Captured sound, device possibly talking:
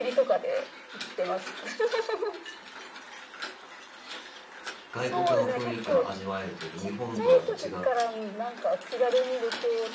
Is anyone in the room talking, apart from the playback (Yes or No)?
Yes